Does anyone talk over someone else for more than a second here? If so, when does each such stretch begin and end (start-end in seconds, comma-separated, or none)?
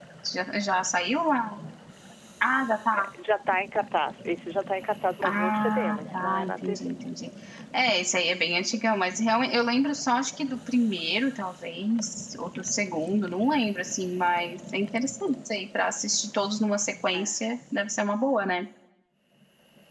5.2-6.9